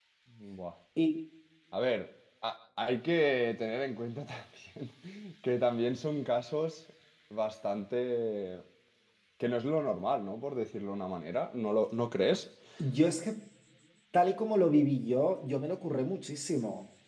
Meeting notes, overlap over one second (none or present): none